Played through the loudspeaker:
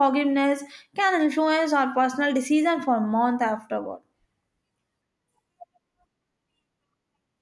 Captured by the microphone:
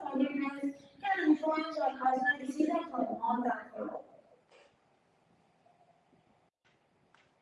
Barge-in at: none

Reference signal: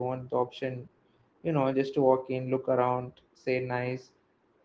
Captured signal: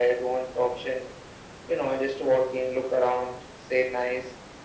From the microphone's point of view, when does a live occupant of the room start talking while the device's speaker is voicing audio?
none

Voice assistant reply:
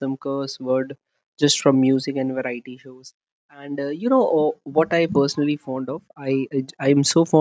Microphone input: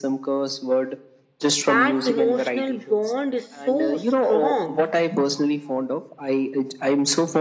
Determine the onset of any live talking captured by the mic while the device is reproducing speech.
2 s

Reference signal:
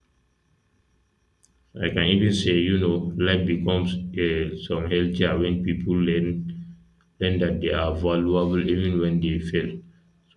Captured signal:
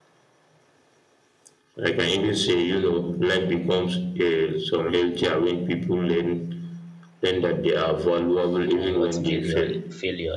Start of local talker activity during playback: 9 s

